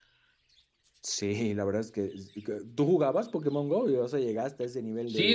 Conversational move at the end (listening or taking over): taking over